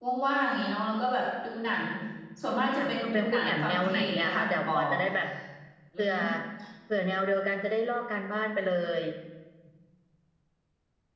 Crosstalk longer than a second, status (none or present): present